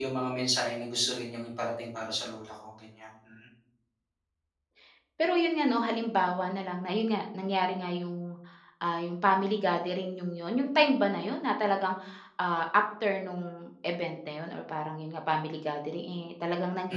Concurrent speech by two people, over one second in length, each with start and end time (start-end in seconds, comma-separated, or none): none